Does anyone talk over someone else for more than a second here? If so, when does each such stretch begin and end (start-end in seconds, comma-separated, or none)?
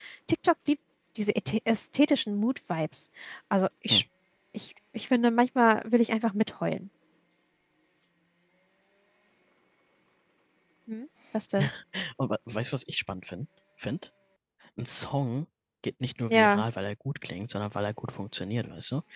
none